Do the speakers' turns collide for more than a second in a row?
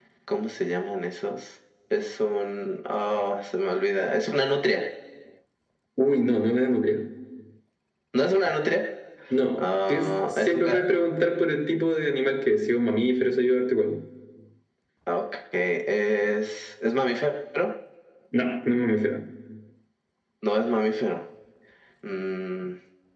Yes, from 9.6 s

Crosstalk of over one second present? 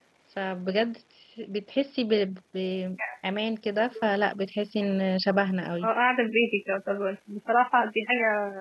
No

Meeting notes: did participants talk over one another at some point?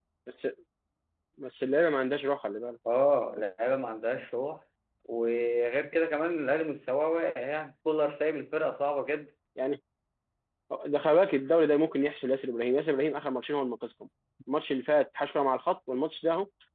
No

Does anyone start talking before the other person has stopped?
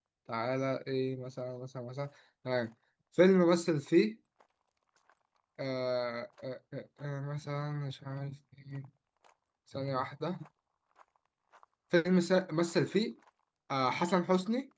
No

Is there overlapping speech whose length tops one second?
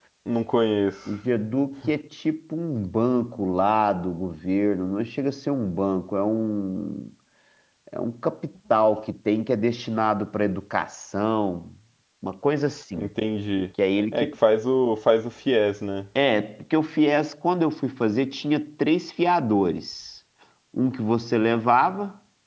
No

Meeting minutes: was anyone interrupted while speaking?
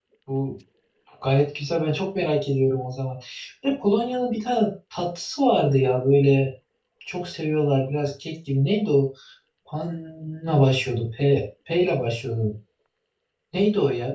No

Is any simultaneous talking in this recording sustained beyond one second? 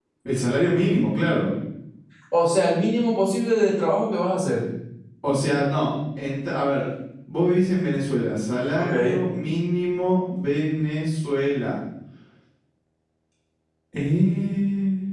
No

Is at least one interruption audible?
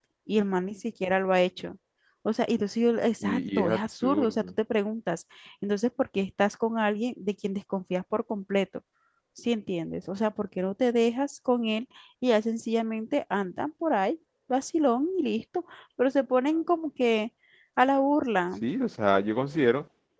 Yes, from 3.2 s

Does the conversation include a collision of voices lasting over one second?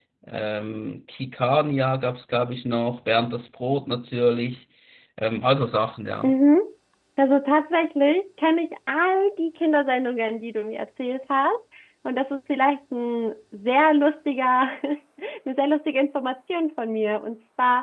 No

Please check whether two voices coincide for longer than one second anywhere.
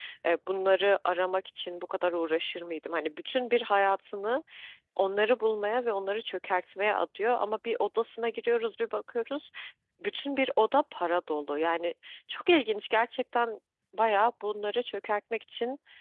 No

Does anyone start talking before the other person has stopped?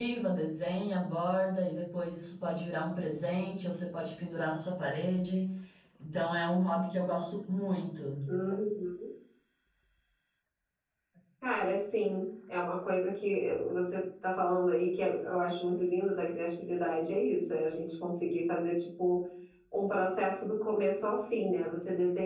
No

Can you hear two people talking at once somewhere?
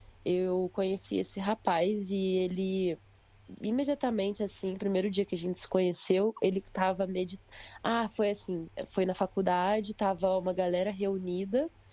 No

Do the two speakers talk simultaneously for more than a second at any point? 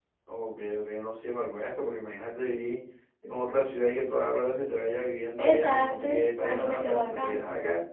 Yes, from 5.4 s

